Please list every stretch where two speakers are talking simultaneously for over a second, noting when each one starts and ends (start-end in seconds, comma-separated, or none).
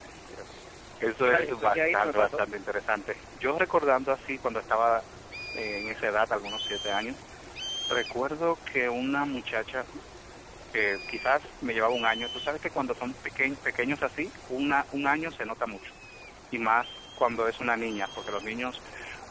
1.2-2.4